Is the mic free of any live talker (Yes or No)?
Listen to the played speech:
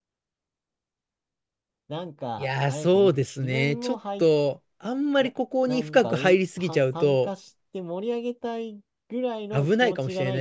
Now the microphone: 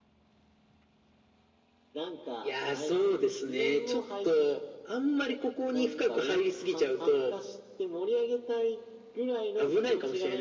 Yes